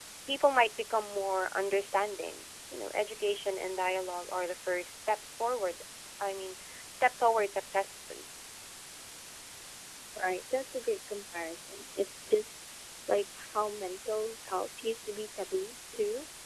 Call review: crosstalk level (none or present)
none